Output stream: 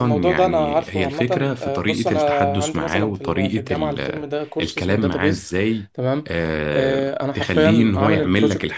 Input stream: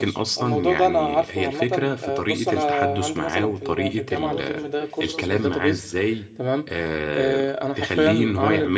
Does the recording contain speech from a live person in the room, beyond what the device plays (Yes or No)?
Yes